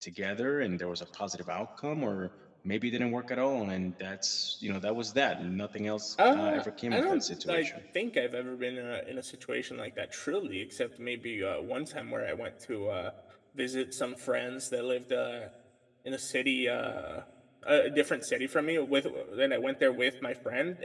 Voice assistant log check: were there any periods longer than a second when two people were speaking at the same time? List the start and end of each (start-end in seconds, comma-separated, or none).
6.3-7.7